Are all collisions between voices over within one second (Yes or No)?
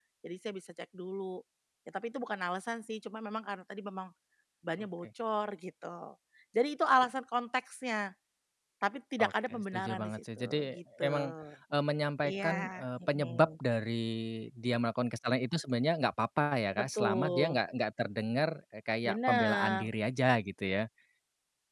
No